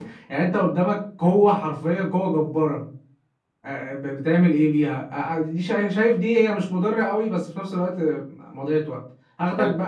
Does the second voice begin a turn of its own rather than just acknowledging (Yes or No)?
No